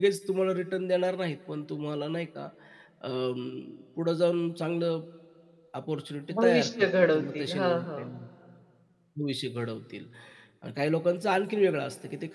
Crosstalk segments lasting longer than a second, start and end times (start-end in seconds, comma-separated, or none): 6.3-8.2